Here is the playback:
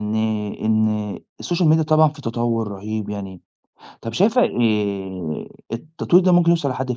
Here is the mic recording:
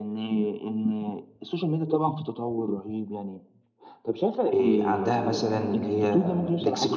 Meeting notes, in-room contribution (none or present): present